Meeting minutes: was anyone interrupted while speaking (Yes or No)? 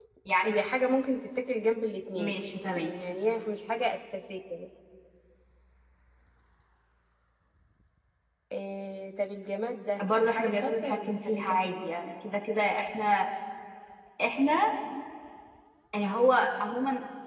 Yes